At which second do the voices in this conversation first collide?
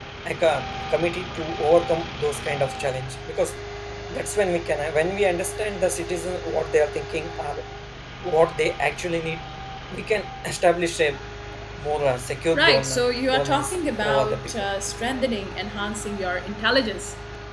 12.5 s

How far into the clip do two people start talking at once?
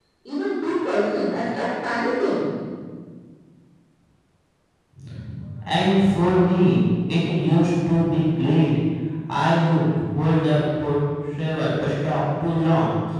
none

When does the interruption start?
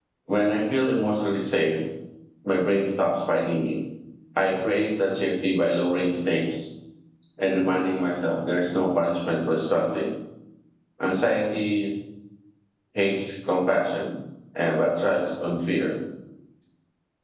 none

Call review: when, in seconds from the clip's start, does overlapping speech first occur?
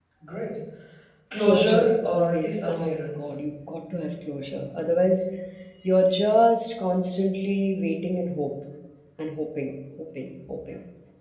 1.4 s

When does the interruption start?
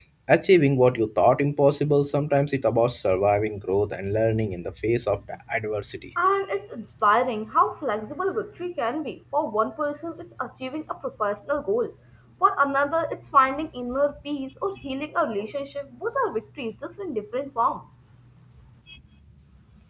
none

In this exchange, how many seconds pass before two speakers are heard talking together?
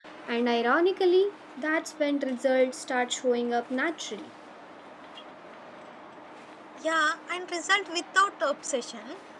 none

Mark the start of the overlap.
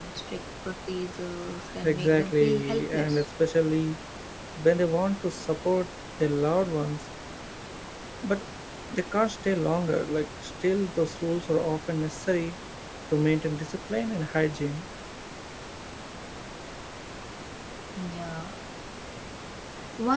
1.8 s

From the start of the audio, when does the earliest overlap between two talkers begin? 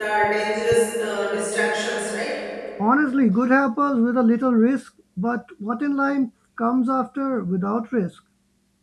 none

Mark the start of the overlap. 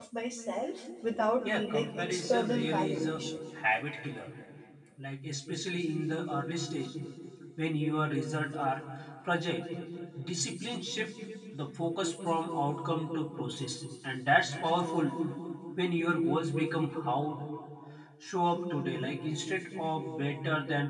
1.4 s

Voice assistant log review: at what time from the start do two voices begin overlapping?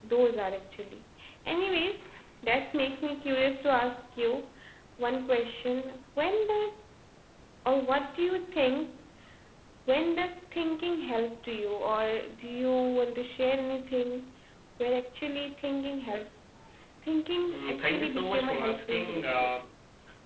17.5 s

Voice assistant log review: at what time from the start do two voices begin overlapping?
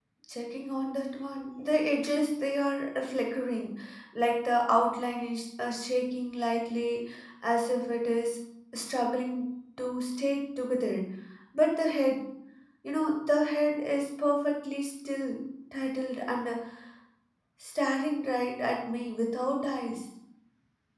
none

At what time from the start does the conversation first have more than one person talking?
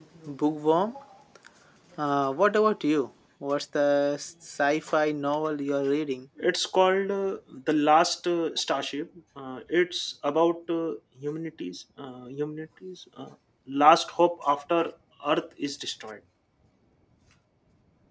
none

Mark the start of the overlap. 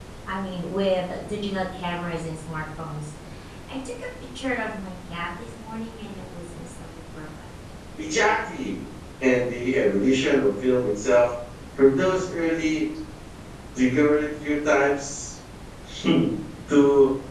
none

